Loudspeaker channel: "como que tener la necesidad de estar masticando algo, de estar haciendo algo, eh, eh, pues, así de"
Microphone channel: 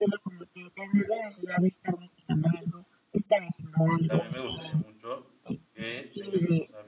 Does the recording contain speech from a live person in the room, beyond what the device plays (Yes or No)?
Yes